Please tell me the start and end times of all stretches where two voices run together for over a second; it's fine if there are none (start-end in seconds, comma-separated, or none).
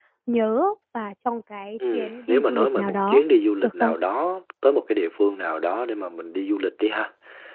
1.9-3.2